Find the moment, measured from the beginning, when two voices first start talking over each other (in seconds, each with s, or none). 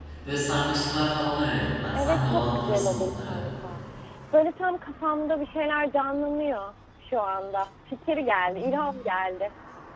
1.9 s